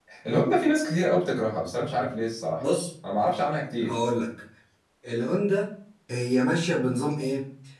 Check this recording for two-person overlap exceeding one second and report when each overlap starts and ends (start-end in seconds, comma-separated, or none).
none